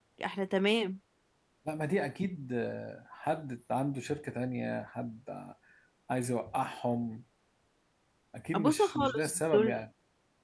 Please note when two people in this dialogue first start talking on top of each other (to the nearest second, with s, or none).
9 s